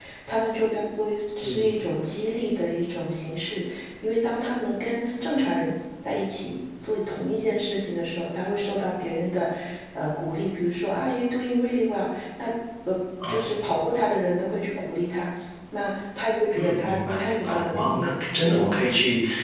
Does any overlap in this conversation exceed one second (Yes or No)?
Yes